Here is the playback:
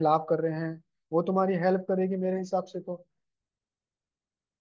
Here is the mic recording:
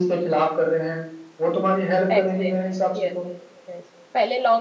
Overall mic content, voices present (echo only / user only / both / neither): both